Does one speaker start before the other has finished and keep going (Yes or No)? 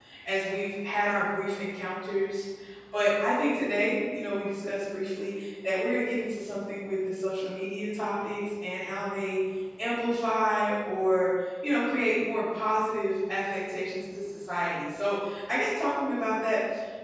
No